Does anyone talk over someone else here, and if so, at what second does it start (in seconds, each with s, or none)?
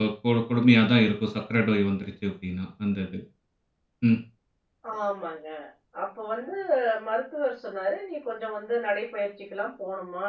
none